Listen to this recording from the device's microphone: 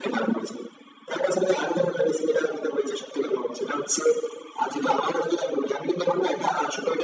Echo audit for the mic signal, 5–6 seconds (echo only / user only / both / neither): echo only